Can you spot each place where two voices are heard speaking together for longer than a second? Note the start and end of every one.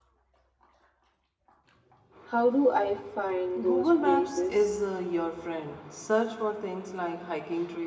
3.6-4.8

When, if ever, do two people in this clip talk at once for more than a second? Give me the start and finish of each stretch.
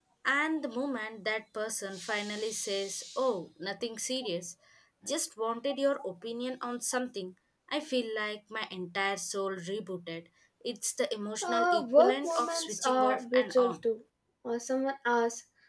11.4-13.8

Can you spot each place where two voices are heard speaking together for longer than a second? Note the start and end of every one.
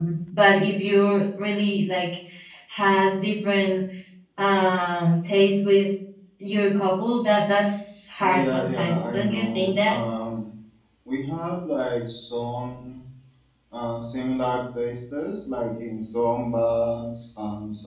8.2-10.0

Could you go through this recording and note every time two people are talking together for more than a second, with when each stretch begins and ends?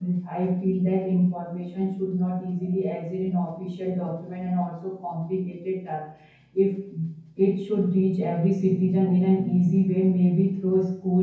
none

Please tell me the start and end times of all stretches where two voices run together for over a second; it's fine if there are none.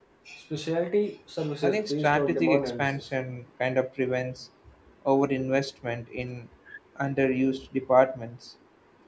1.6-3.0

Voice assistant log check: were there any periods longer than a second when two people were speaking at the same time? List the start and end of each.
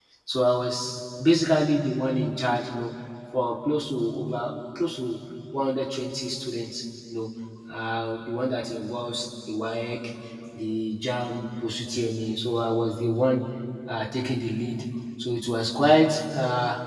none

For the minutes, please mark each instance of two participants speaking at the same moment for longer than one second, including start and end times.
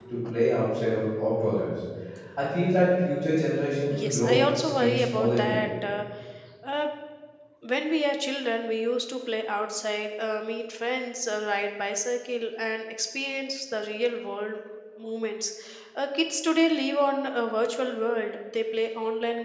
4.0-5.6

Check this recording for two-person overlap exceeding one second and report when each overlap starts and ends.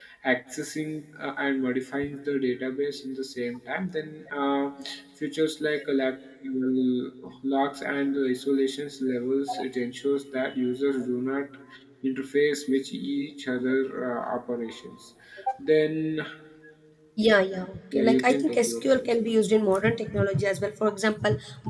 17.9-19.4

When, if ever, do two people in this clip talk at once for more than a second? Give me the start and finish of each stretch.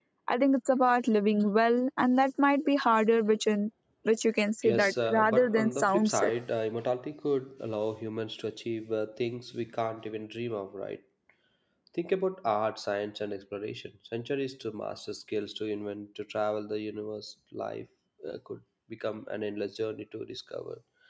4.6-6.2

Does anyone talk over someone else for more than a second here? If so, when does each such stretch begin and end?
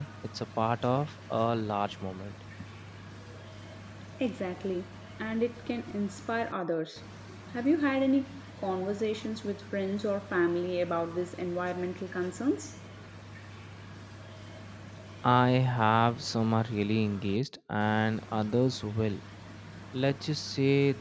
none

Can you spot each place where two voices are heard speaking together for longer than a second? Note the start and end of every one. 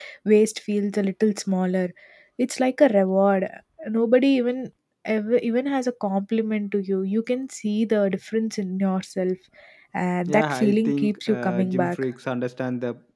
10.3-12.0

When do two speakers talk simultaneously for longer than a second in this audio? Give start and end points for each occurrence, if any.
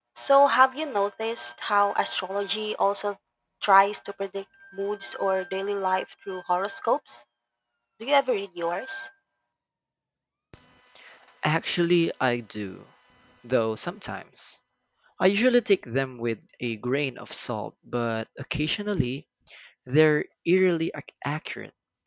none

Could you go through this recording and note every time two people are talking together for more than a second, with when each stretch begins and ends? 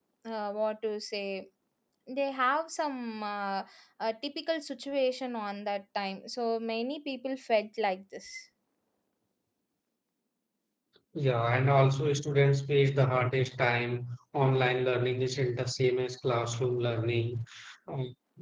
none

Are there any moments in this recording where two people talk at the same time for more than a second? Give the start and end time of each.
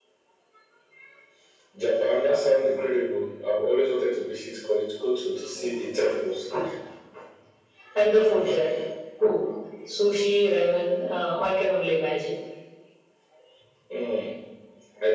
none

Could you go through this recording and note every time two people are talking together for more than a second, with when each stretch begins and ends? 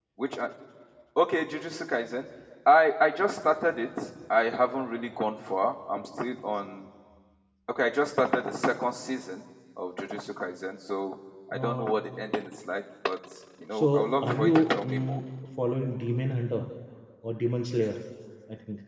13.7-15.2

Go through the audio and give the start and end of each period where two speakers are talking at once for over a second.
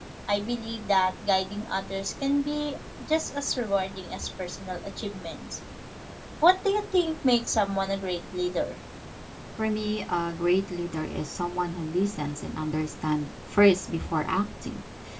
none

